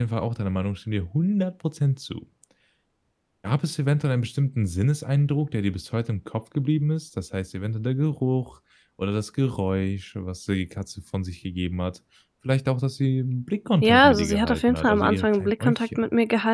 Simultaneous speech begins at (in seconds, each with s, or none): 13.8 s